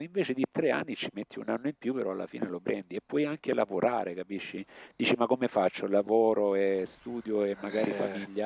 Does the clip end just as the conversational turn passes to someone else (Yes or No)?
No